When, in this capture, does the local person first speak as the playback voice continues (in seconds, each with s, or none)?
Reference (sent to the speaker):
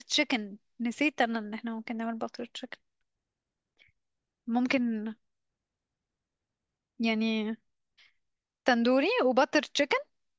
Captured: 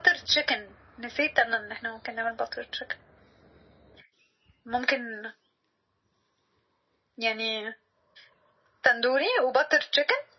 none